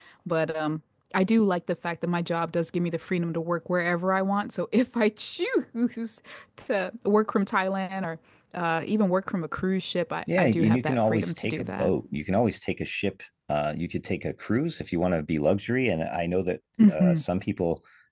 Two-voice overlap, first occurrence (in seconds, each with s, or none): 10.4 s